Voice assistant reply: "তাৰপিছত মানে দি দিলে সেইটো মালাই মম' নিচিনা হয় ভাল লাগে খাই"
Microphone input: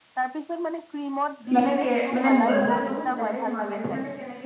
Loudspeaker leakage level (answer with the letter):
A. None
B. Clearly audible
B